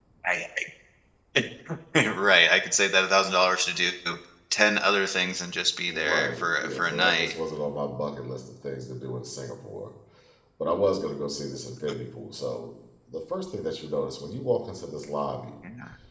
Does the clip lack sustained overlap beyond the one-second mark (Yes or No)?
No